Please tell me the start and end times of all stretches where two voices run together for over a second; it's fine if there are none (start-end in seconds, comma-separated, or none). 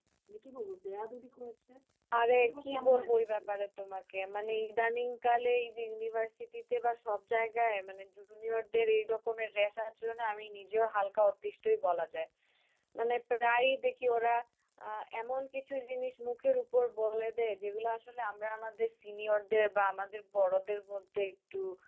2.3-3.5